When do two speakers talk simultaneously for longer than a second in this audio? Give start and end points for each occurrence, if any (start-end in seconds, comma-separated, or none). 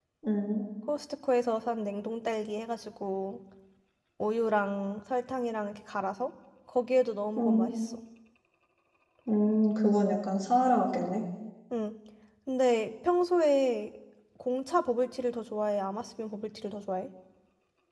none